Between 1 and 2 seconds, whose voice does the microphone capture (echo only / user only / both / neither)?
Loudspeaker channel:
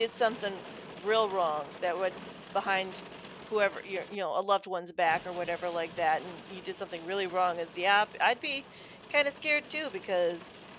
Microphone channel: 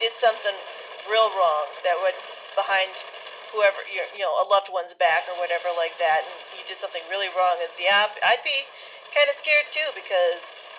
echo only